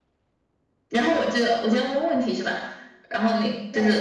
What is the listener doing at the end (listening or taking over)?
taking over